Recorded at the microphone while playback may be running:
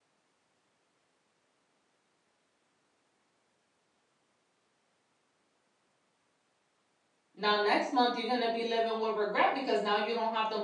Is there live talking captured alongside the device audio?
Yes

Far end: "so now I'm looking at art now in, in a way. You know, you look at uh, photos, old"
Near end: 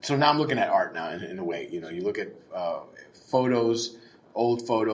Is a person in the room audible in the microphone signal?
No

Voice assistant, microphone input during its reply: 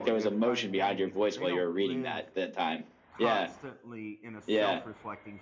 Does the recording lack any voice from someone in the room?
No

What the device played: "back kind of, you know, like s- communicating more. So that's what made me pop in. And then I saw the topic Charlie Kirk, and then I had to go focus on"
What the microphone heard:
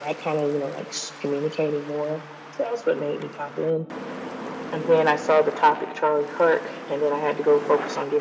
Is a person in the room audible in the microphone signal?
No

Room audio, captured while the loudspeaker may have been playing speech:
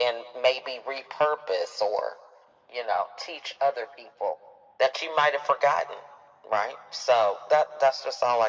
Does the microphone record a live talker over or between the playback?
No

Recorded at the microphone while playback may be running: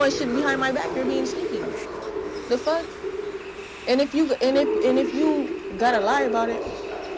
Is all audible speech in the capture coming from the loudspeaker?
No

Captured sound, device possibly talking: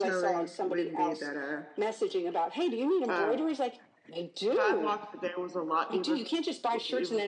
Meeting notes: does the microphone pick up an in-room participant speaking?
Yes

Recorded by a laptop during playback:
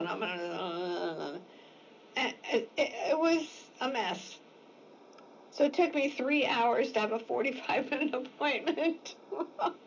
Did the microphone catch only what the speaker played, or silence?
Yes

